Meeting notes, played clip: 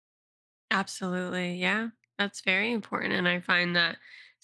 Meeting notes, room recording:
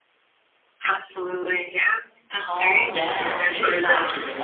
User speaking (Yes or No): Yes